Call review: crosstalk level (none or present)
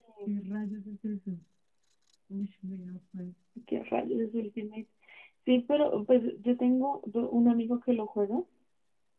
none